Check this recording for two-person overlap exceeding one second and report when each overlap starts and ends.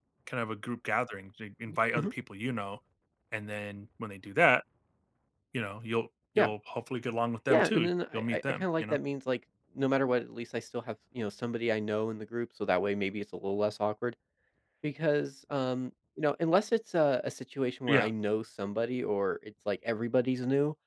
7.5-9.0

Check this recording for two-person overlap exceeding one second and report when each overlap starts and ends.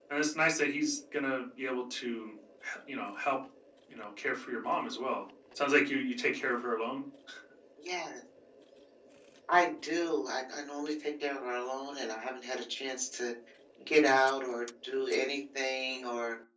none

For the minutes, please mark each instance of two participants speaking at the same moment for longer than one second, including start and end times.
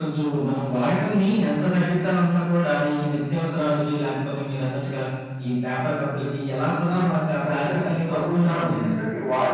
7.5-8.9

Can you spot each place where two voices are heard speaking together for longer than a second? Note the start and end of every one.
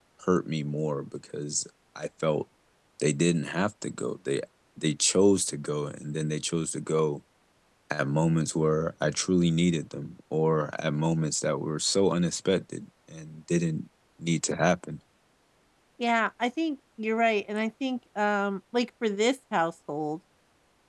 none

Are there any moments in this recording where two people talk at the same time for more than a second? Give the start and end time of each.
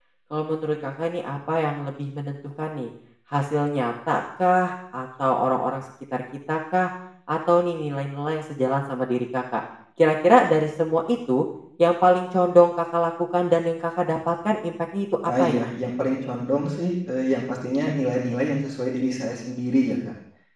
none

